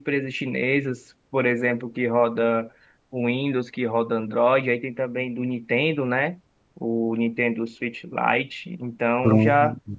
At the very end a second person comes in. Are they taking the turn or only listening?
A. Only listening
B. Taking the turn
A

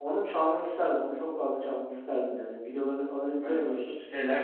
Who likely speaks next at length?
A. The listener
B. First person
A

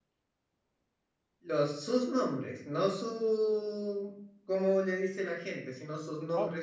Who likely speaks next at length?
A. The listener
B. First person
A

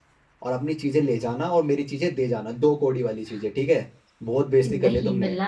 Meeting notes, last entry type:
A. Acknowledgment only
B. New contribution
B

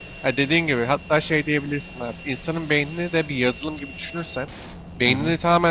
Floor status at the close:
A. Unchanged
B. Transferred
A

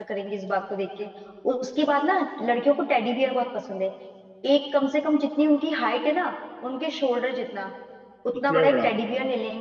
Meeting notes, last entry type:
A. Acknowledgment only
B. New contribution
A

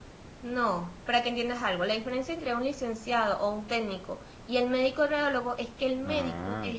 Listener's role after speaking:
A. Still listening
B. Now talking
A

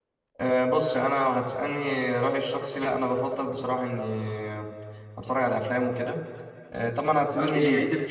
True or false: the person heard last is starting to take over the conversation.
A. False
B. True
B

